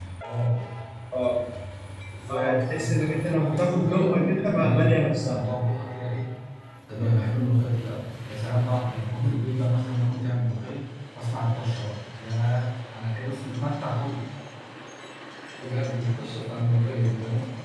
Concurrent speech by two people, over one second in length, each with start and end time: 2.3-5.5

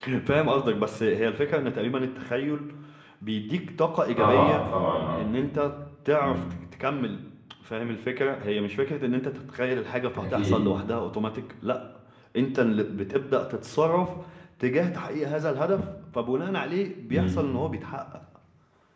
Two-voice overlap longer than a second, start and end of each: none

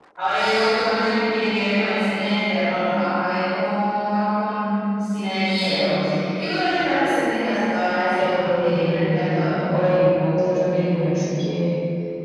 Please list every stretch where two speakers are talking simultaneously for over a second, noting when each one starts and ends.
8.2-9.5

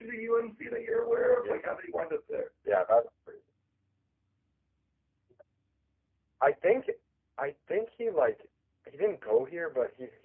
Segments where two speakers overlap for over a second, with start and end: none

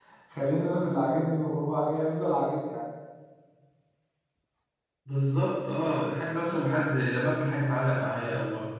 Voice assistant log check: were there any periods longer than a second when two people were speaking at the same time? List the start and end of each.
none

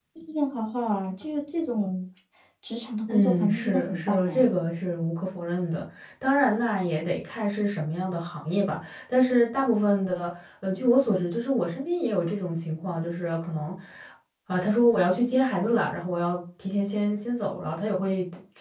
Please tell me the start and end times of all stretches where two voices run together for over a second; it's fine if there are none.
3.1-4.5

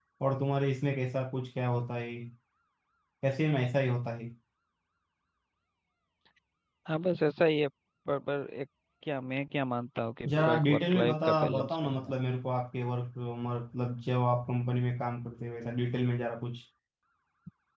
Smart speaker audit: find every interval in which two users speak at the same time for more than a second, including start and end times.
10.3-12.2

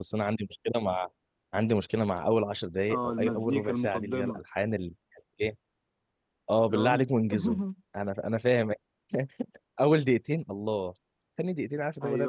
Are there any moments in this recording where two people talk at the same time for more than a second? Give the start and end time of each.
2.9-4.4

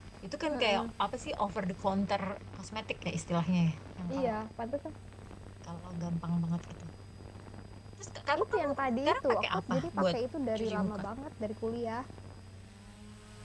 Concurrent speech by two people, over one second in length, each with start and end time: 8.4-10.2

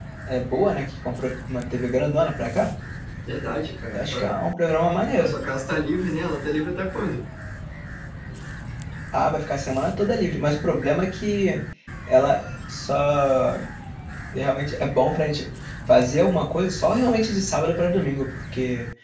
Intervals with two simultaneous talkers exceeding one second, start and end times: none

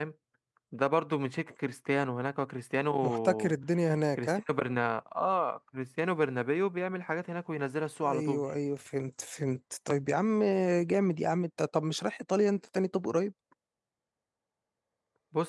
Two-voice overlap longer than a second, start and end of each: none

